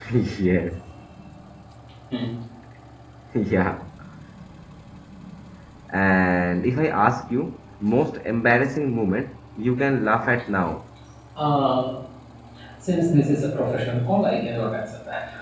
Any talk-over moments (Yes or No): No